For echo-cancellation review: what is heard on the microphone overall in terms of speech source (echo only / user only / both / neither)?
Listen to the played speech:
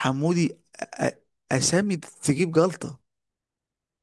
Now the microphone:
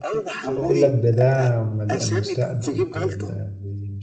both